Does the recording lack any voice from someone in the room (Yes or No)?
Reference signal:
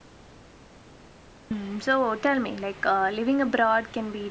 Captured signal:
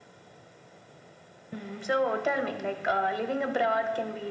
Yes